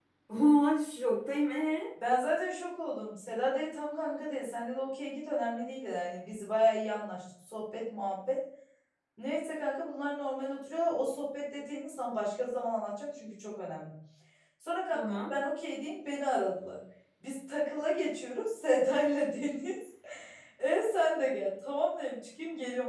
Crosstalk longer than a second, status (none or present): none